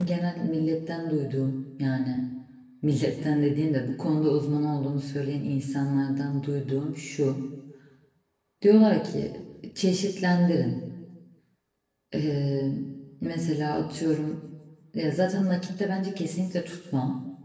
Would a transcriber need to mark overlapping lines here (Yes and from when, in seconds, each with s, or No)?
No